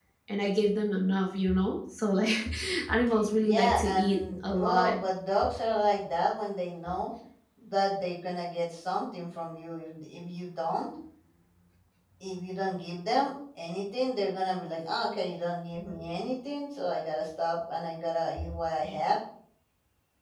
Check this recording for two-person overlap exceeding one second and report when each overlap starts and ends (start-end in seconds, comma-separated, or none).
3.4-5.0